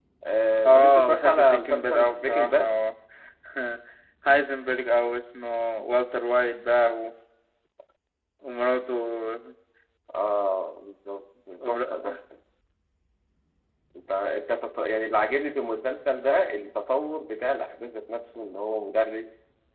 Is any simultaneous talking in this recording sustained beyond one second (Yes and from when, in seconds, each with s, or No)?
Yes, from 0.7 s